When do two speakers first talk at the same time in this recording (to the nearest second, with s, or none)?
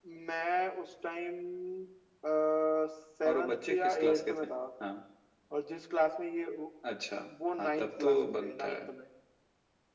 3 s